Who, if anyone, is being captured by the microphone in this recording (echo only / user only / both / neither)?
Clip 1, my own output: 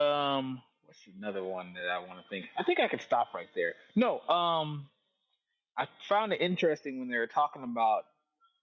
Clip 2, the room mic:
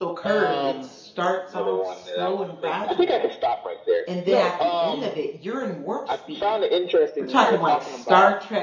both